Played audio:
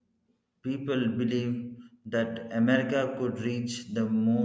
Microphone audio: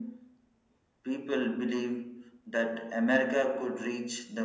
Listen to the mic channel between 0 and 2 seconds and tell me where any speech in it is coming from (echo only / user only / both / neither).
echo only